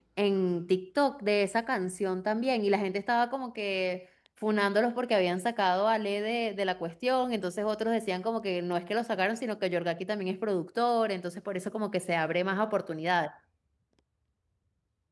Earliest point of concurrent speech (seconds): none

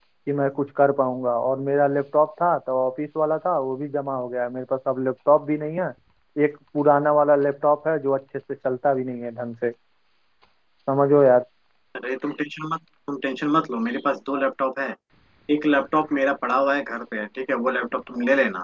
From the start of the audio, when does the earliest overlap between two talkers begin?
none

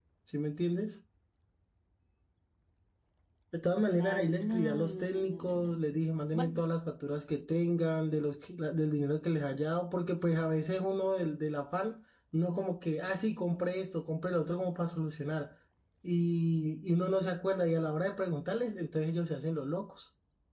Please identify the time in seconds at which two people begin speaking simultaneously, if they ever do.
3.9 s

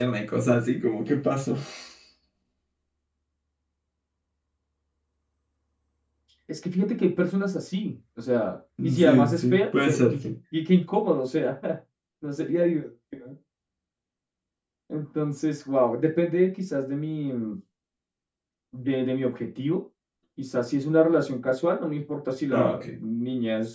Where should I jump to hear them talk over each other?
9.0 s

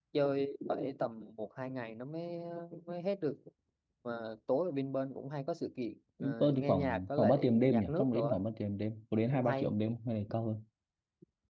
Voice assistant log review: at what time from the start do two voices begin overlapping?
6.2 s

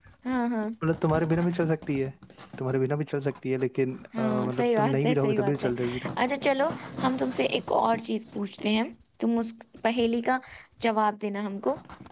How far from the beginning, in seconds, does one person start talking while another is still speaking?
4.1 s

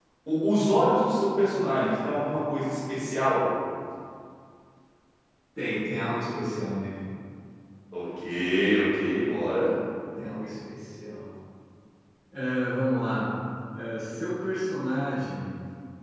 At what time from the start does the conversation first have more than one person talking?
none

